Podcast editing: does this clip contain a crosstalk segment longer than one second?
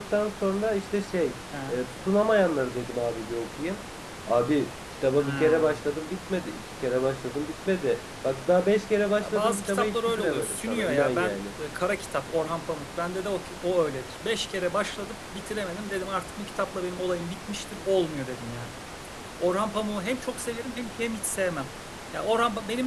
Yes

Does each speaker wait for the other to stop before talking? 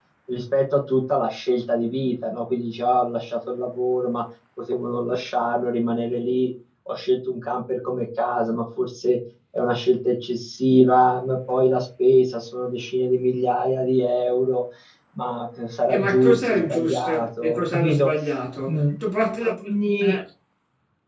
No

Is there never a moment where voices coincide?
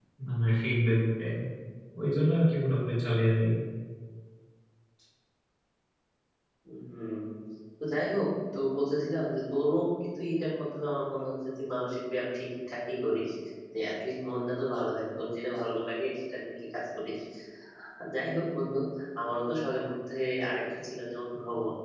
Yes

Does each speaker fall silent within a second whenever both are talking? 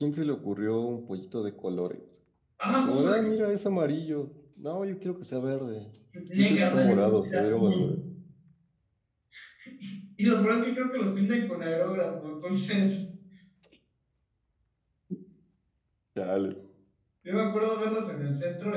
No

